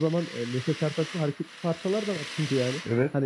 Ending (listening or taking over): listening